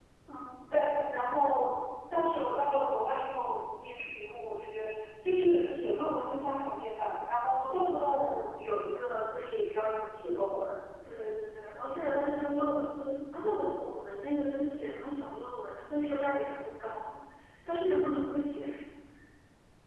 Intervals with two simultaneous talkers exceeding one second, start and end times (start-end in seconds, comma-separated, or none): none